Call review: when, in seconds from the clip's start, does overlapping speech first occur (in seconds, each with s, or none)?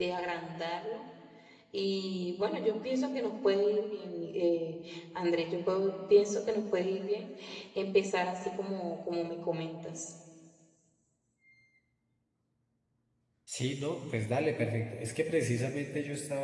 none